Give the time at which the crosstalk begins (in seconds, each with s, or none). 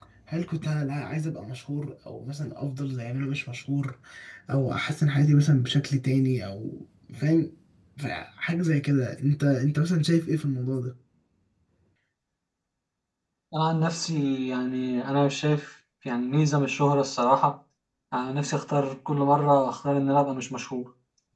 none